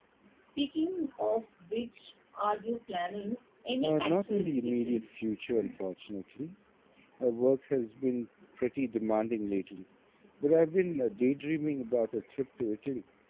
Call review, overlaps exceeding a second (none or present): present